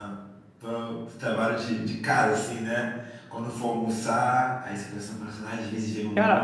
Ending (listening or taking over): taking over